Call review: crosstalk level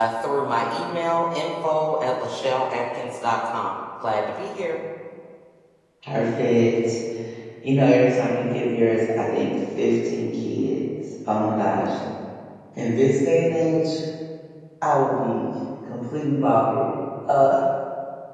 none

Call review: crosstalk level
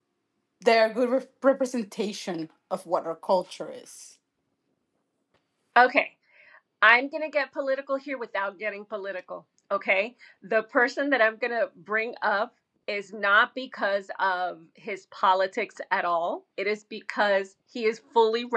none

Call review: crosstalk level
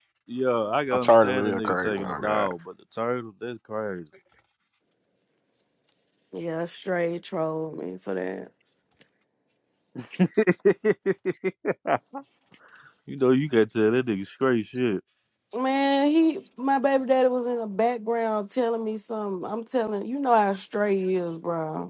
present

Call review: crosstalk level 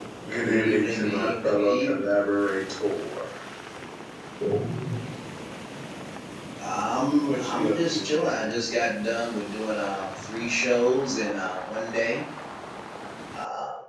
present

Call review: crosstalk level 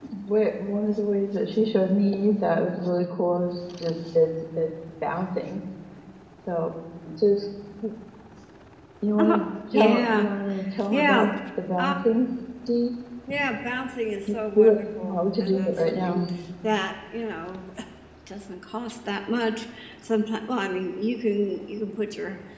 present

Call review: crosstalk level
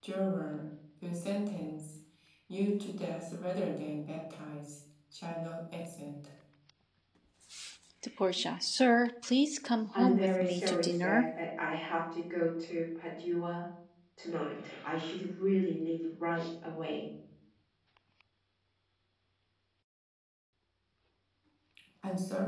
present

